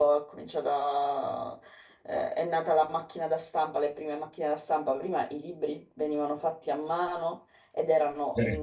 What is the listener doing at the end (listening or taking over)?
listening